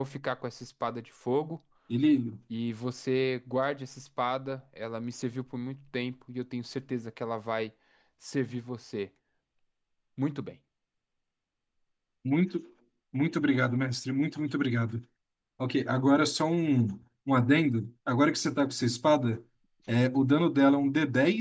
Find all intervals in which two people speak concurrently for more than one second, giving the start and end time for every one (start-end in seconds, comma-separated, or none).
none